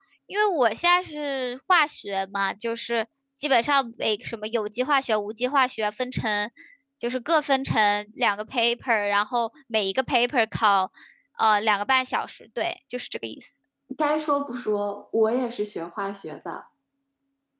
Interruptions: none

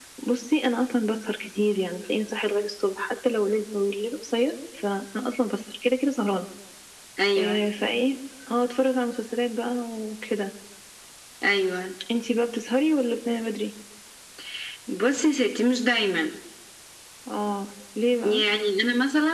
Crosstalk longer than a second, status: none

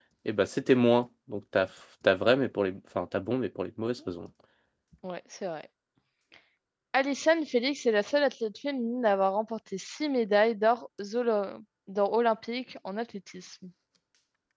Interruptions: none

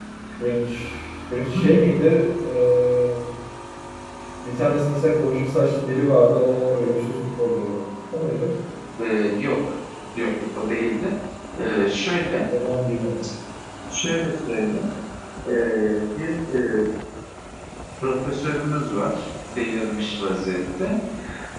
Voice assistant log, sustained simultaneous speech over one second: none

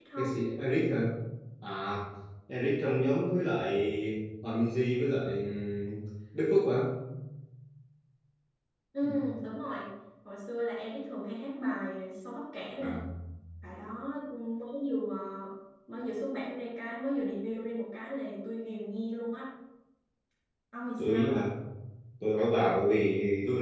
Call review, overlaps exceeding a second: none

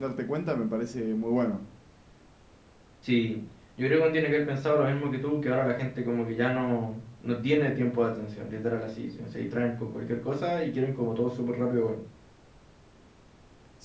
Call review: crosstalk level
none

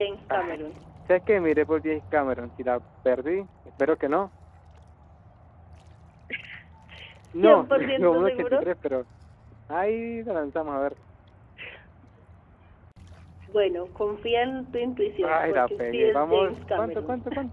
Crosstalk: present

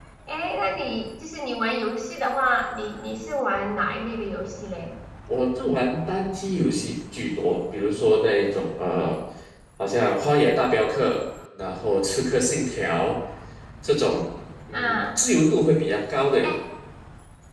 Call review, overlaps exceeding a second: none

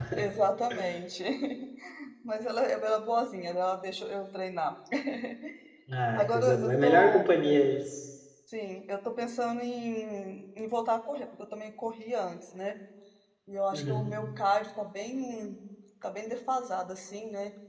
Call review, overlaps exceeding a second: present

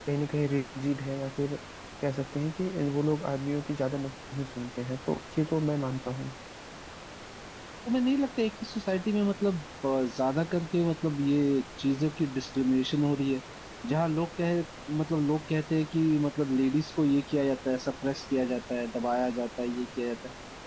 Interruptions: none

